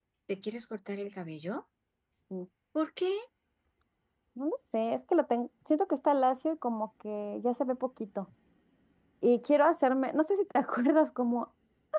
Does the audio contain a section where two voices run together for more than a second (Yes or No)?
No